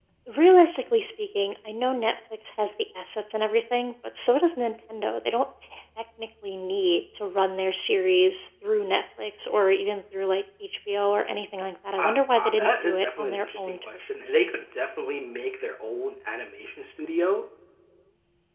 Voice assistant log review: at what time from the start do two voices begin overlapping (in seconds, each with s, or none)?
12.0 s